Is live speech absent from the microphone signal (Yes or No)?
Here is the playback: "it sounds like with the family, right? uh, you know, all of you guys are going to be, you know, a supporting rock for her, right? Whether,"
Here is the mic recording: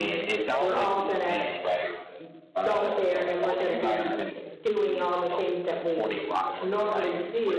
No